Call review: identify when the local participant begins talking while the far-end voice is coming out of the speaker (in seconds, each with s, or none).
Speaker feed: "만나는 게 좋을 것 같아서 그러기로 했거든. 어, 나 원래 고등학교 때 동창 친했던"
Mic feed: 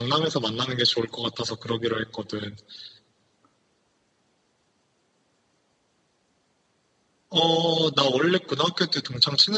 none